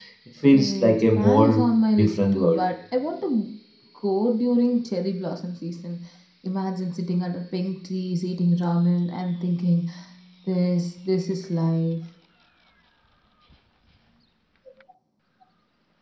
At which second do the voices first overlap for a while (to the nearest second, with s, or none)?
1 s